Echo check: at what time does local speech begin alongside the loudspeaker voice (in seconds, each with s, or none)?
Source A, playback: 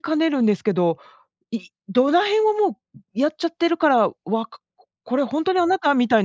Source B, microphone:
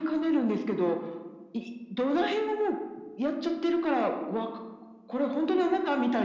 none